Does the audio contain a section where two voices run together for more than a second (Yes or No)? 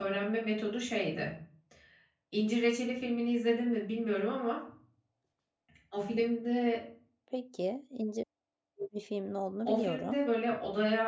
No